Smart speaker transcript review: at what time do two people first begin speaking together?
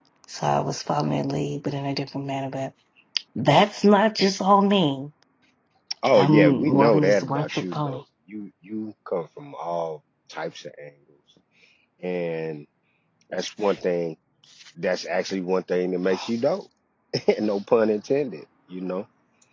6.2 s

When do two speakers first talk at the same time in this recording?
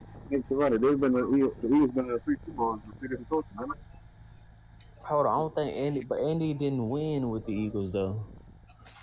none

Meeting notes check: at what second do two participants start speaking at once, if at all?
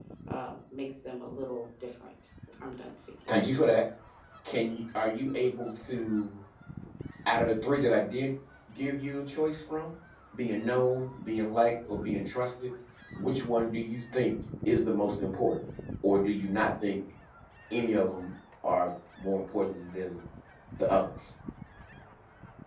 none

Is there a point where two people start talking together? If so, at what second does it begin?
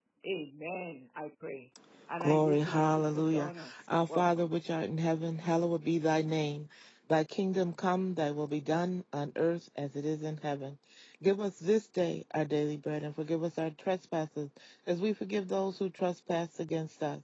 2.2 s

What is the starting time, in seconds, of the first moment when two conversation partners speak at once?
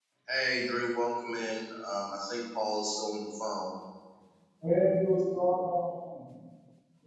none

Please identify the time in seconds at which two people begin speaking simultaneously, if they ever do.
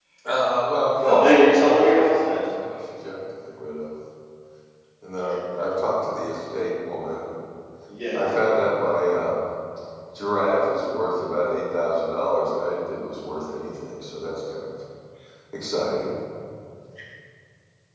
1.0 s

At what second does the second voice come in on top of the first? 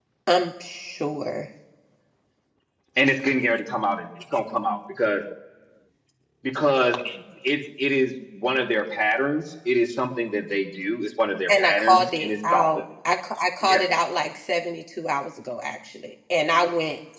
11.5 s

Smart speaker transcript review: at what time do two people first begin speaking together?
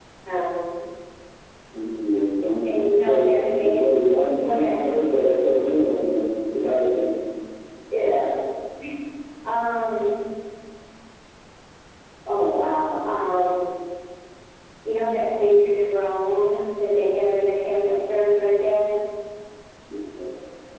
2.6 s

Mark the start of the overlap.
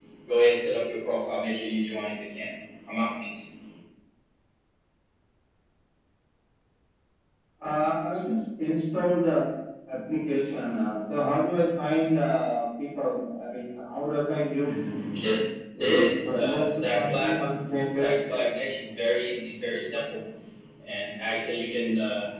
15.8 s

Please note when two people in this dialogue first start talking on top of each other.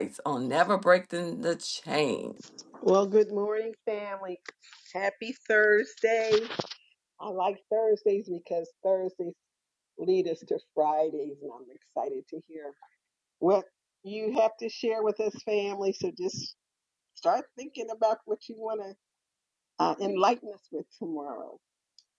none

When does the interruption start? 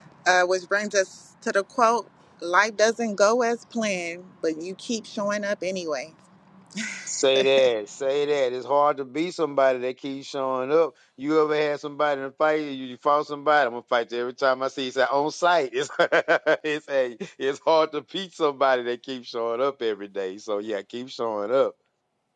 none

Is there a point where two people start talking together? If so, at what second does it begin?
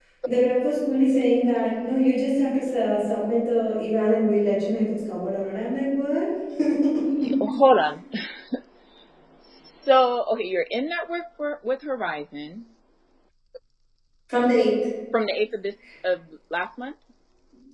none

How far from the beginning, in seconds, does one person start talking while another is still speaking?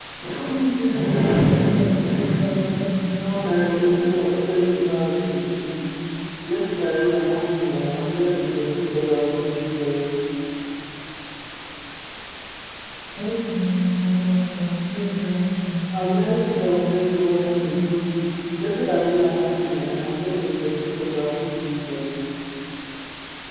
3.2 s

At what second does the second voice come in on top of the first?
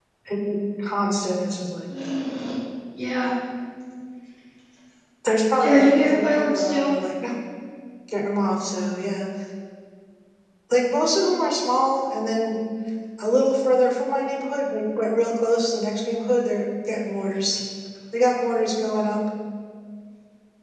5.6 s

